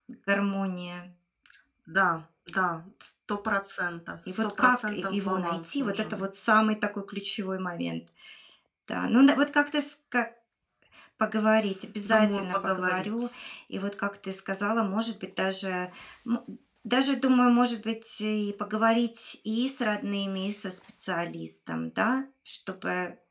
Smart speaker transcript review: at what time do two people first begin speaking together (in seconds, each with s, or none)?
4.3 s